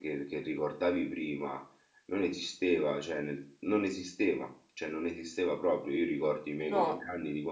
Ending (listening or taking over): listening